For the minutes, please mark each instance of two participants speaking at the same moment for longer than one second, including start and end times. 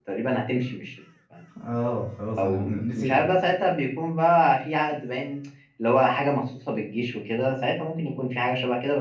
2.4-3.6

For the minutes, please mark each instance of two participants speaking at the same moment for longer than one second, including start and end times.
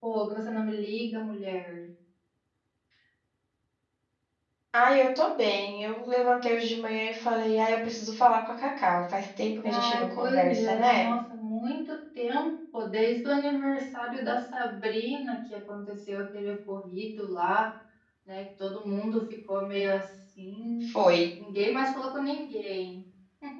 9.6-11.1

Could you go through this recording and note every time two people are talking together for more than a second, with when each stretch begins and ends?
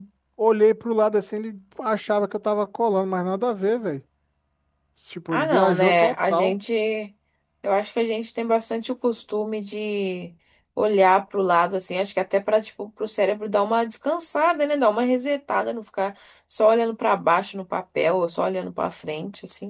5.3-6.6

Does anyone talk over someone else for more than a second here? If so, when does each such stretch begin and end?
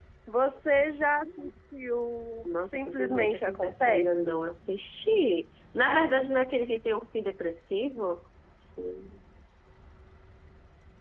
2.4-4.1

